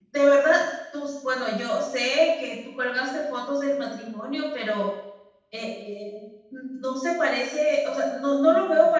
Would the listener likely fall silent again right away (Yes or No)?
Yes